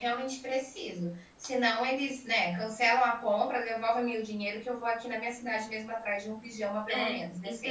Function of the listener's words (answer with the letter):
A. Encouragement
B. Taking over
B